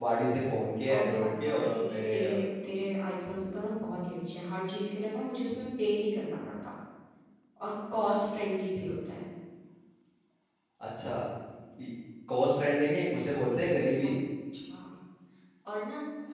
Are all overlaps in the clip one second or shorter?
No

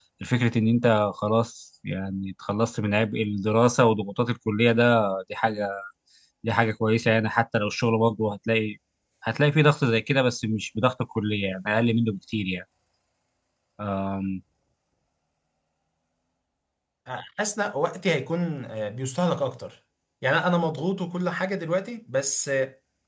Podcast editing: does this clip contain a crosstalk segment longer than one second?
No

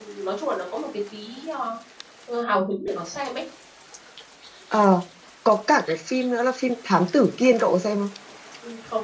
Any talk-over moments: No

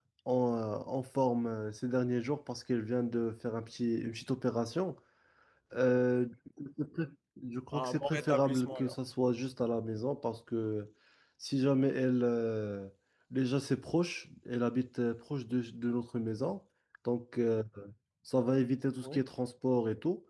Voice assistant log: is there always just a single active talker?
No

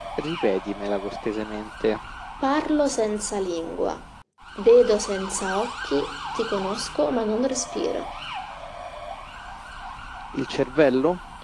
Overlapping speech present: No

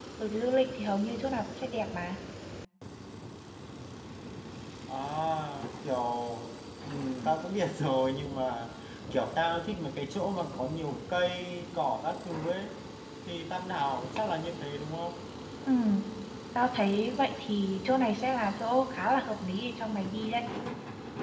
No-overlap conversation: Yes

